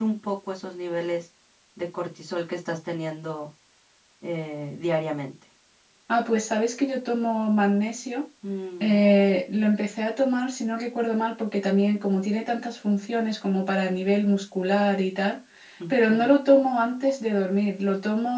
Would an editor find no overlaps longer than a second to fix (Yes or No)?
Yes